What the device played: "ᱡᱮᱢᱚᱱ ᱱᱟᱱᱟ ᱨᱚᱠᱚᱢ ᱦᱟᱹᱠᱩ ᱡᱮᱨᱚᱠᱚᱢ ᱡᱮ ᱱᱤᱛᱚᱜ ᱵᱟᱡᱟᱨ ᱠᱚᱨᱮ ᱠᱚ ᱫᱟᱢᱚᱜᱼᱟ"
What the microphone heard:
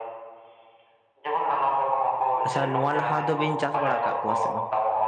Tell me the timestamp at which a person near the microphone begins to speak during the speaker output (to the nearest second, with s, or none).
2 s